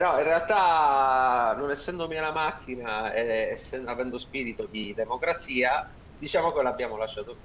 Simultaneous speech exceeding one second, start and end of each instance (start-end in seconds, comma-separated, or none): none